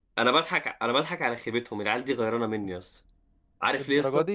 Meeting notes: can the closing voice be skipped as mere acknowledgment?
Yes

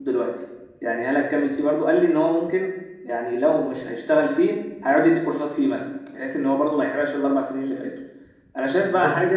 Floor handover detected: No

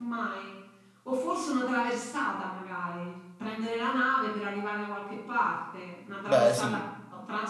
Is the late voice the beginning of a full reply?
No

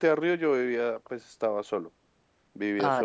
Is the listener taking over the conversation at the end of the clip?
No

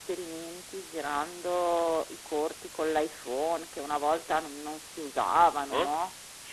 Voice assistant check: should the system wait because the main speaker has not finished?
No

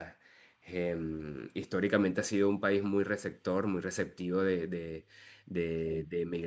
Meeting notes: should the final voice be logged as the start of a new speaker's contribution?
No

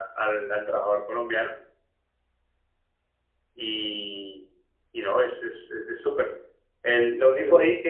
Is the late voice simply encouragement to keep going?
Yes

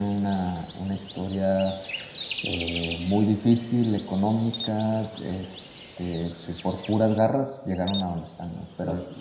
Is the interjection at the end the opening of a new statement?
Yes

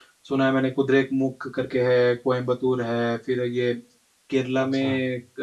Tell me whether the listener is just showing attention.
Yes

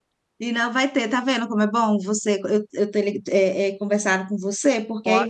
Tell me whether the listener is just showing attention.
Yes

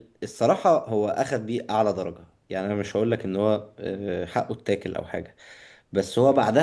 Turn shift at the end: No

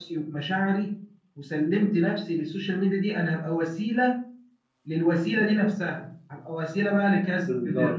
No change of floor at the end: Yes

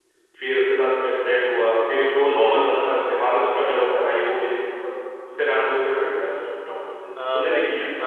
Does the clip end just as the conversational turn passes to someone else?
Yes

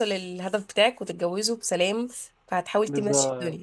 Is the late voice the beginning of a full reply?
Yes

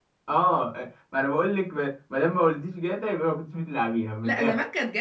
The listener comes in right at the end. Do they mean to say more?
Yes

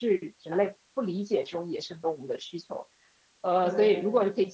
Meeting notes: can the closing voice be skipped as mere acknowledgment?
Yes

